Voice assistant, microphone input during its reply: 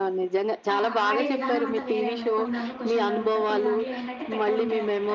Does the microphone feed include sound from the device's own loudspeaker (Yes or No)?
Yes